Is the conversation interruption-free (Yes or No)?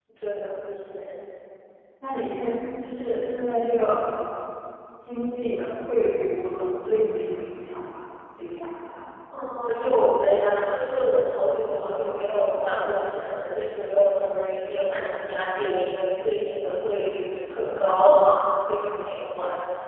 Yes